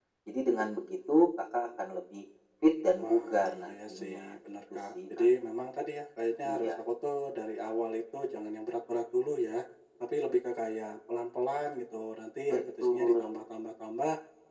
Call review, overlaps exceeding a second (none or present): present